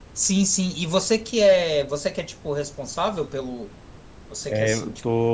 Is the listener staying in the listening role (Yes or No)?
No